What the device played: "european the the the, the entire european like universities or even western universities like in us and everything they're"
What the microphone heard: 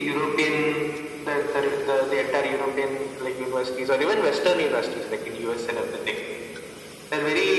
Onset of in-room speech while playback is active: none

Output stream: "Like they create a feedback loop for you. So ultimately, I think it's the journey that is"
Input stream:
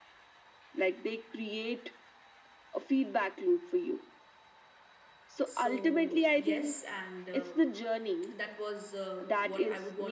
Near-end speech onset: 5.4 s

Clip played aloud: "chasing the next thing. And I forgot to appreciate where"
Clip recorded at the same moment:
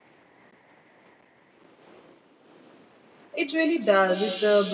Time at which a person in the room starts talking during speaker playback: 3.3 s

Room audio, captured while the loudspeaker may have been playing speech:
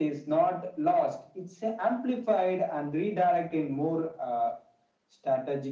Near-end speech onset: none

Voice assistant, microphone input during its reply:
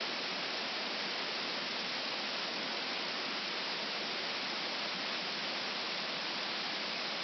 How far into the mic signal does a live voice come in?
none

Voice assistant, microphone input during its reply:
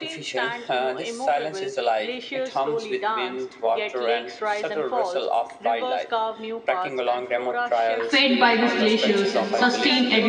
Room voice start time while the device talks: 8.0 s

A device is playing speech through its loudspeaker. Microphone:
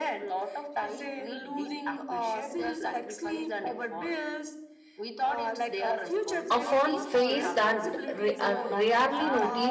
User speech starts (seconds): 6.5 s

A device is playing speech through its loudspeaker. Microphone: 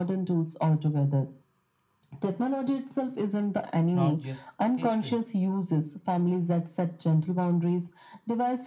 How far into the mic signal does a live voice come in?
3.9 s

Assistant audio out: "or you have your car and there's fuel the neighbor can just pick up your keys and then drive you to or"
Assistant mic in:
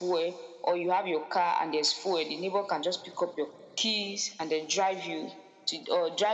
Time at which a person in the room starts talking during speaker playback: none

